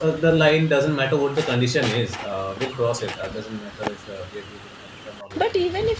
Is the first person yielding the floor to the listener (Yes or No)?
Yes